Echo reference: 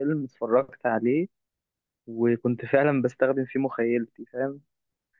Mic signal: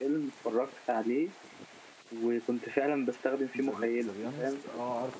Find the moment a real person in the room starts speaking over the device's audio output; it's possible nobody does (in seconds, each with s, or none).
3.6 s